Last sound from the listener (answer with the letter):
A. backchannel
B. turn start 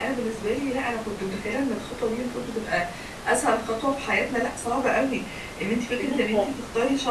A